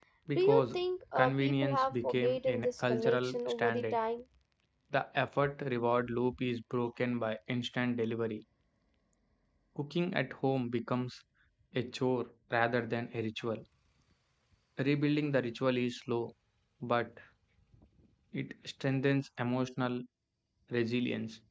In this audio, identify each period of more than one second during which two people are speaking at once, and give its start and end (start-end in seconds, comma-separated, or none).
1.1-4.0